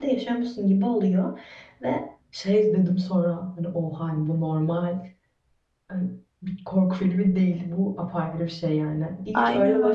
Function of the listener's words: listening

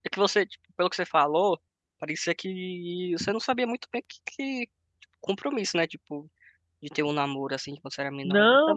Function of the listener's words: taking over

